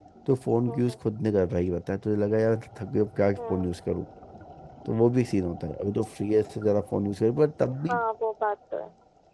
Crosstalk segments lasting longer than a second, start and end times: none

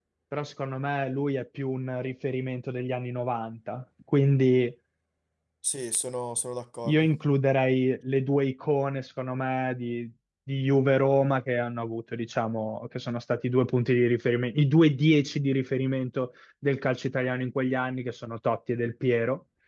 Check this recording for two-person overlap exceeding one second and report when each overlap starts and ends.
none

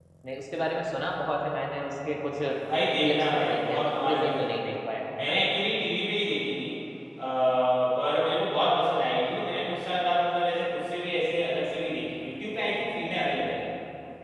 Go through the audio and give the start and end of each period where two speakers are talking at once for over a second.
2.9-4.7

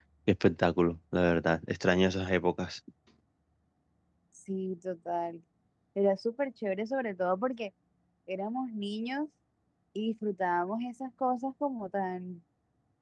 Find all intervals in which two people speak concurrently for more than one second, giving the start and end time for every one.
none

